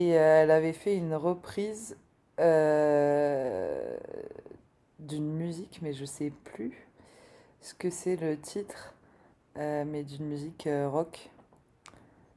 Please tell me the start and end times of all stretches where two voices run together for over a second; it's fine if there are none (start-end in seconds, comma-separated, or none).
none